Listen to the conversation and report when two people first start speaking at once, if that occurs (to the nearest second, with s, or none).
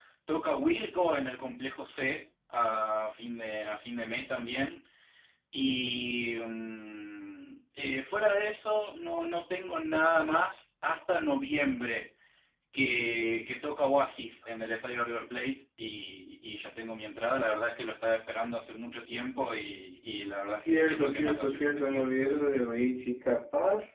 21 s